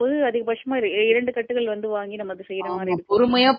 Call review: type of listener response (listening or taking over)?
taking over